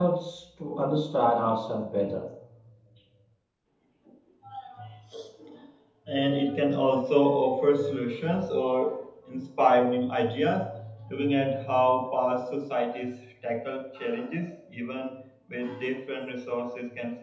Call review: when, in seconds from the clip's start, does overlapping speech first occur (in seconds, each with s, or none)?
none